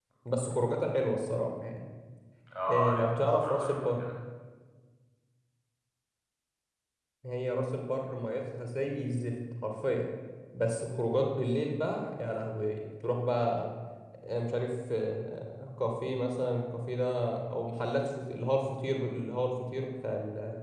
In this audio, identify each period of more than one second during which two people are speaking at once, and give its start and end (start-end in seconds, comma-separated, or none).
2.7-4.0